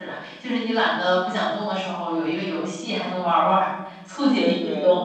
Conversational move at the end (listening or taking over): taking over